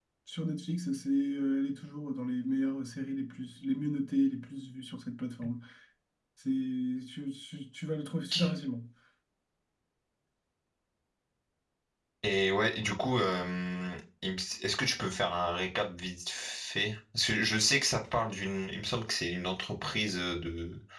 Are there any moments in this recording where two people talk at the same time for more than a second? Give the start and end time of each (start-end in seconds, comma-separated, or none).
none